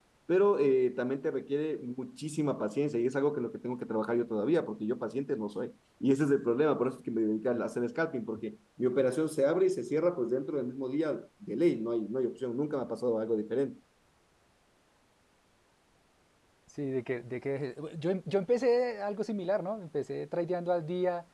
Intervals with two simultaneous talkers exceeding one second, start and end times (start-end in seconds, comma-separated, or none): none